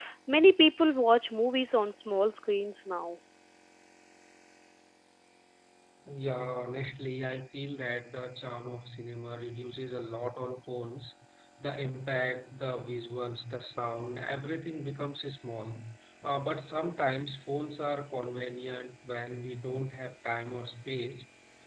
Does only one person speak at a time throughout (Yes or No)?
Yes